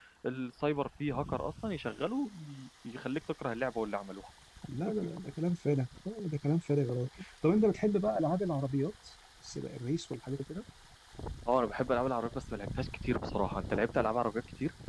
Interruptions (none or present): none